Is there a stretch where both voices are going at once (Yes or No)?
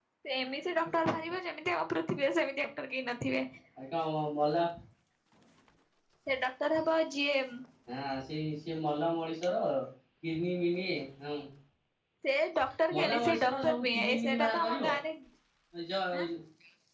Yes